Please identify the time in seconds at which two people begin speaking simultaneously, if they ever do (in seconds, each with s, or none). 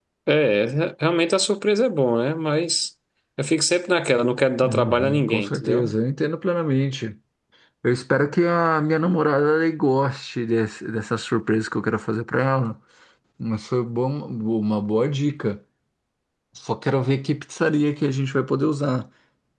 4.6 s